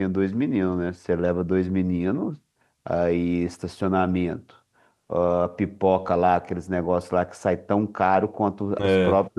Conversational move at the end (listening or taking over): listening